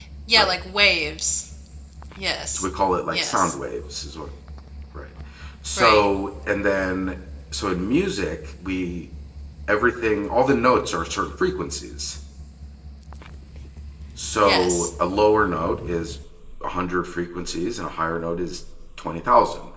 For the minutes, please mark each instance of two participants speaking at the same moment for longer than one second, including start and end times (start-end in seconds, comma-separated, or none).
none